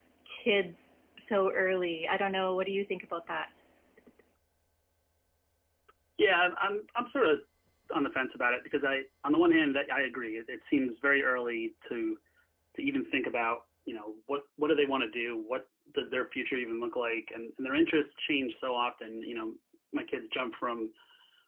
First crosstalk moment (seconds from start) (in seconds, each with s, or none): none